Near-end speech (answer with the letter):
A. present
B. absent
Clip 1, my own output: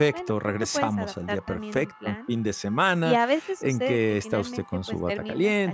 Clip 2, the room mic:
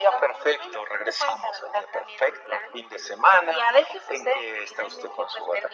B